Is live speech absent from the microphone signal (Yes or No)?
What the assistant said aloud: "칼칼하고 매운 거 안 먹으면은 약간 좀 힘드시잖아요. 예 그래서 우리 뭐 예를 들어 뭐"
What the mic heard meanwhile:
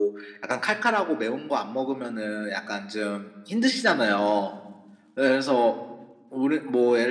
Yes